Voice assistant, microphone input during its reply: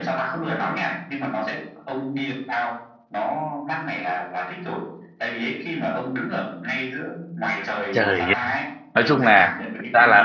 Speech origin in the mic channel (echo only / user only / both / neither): both